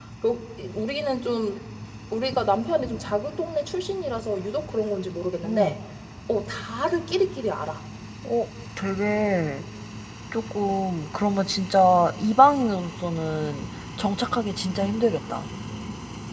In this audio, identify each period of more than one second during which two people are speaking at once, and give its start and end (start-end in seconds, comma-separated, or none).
none